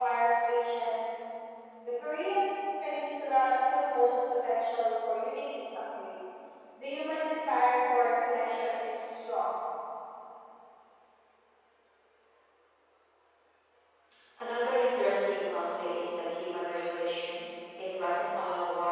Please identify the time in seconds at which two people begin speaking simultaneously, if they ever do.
none

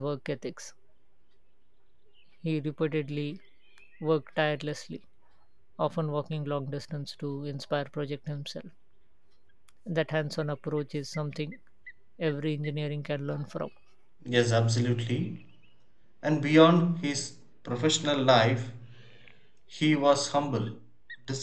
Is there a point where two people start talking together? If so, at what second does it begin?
none

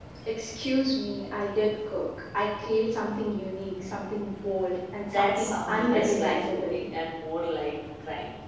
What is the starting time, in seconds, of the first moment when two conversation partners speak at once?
5.1 s

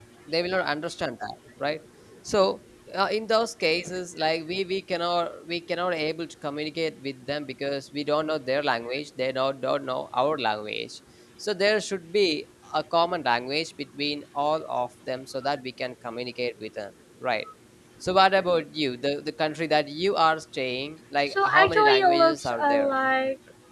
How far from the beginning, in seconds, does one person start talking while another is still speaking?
21.3 s

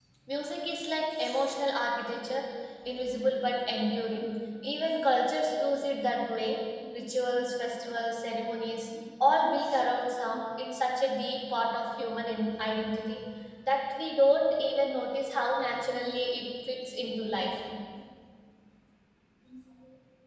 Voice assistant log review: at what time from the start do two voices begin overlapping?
none

